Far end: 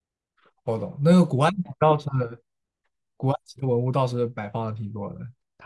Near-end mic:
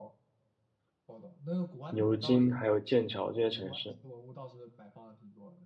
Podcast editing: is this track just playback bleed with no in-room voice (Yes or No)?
No